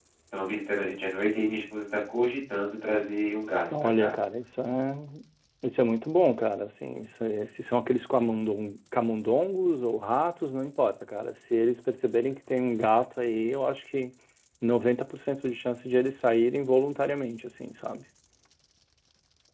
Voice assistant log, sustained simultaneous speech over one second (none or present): none